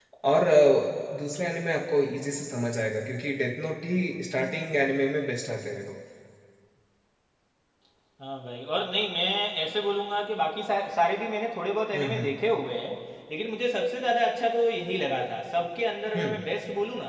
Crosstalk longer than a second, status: none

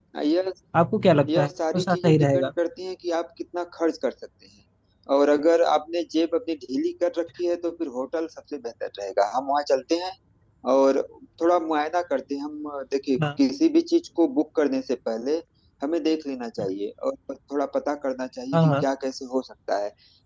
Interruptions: present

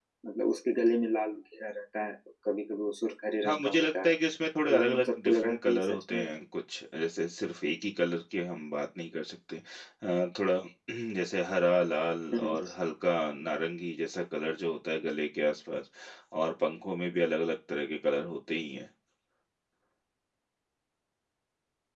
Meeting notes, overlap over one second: present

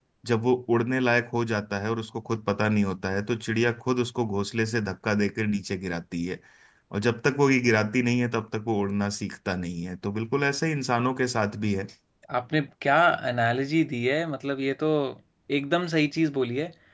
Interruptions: none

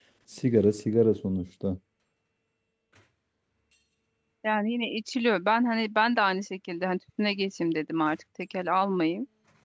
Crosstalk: none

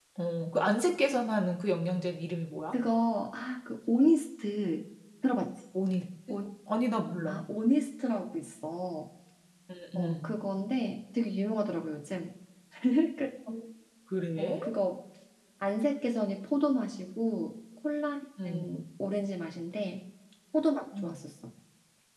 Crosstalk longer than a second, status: none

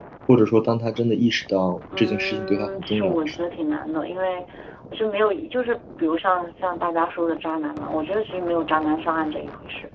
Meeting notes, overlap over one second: present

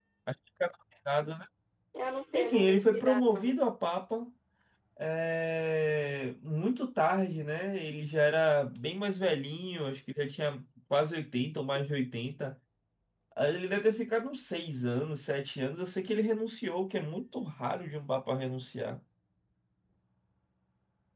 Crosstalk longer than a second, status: present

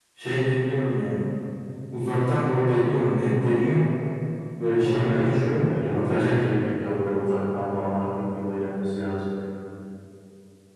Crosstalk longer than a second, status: present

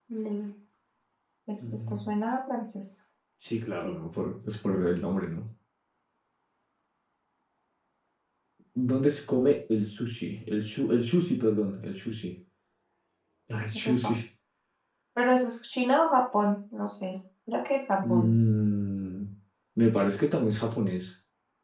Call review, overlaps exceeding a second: none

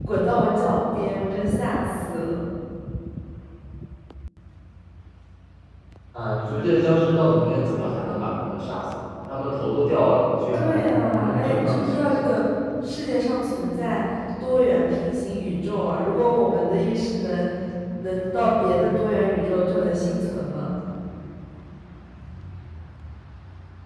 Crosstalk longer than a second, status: present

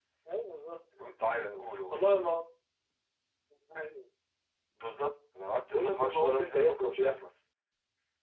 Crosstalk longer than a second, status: present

